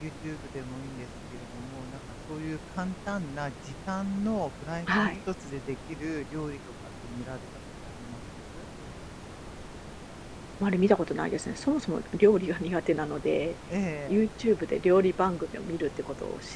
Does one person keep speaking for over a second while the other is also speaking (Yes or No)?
No